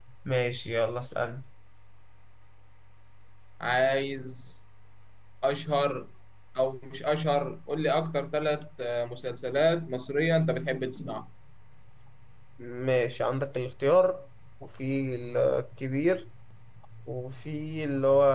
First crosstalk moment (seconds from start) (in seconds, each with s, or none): none